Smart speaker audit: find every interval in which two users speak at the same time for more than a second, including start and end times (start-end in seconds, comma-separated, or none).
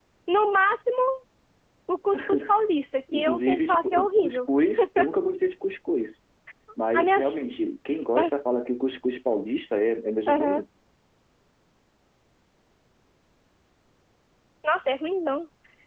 3.1-4.4